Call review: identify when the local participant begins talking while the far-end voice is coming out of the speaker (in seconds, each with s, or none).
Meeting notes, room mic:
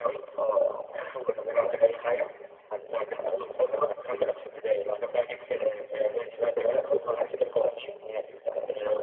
none